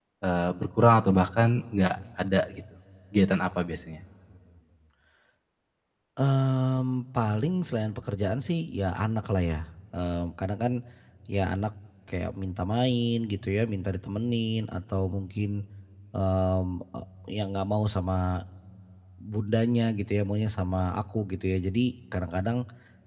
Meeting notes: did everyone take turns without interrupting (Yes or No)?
Yes